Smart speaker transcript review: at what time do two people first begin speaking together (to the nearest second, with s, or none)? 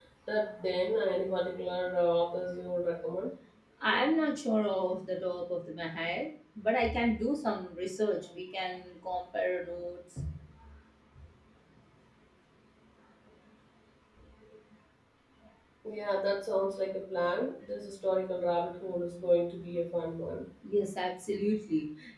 none